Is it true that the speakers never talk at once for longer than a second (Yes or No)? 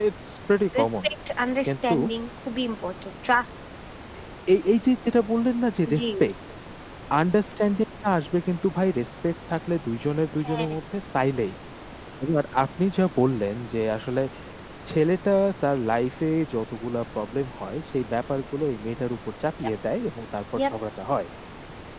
Yes